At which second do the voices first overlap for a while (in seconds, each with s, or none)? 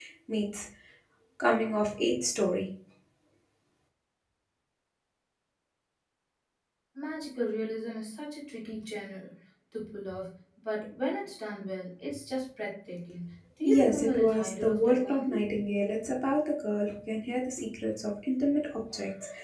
13.6 s